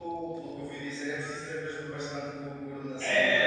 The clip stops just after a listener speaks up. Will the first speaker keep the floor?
No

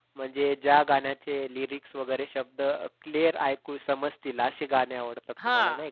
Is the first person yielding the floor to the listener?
Yes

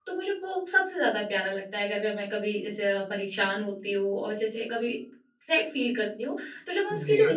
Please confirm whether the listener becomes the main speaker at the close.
No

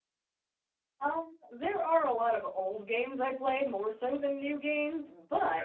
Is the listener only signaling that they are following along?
Yes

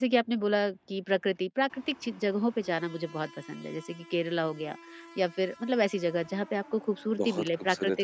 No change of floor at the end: No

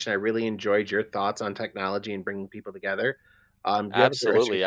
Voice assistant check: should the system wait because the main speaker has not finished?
No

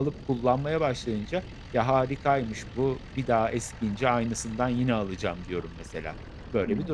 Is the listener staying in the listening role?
No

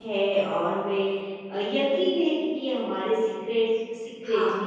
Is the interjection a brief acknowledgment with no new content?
Yes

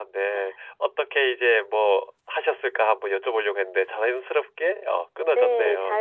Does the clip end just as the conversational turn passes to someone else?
Yes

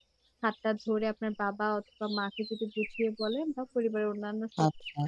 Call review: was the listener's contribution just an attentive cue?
Yes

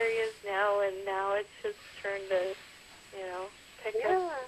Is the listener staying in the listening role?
No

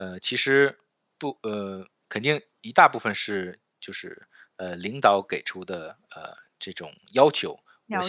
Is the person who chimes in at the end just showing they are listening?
Yes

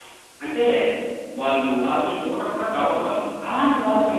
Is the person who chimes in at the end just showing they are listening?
Yes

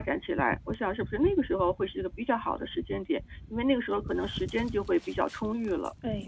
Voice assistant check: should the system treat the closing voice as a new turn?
Yes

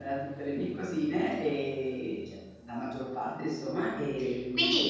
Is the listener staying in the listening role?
No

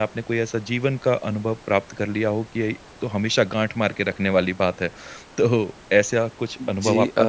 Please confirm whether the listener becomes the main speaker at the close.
Yes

